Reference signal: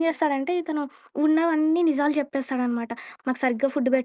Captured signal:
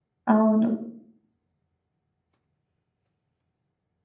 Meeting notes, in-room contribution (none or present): present